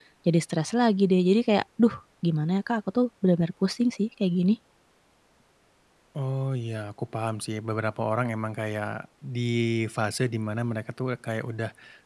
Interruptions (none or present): none